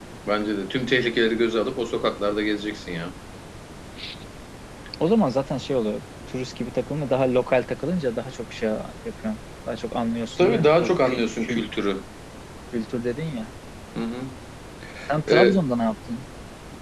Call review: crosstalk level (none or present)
present